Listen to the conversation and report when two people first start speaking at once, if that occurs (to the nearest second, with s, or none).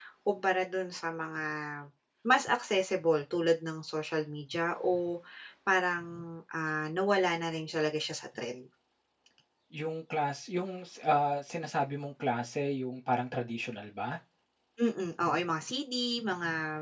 none